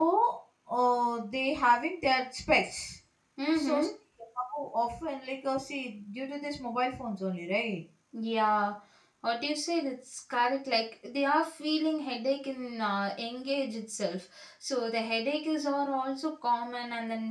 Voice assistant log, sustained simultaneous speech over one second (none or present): none